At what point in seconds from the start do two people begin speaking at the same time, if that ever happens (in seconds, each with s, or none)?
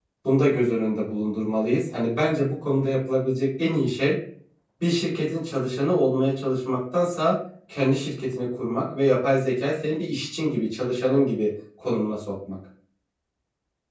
none